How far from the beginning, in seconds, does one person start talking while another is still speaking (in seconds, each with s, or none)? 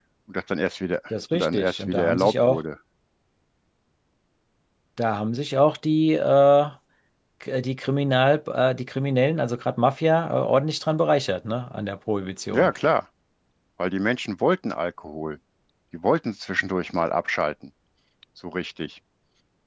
1.1 s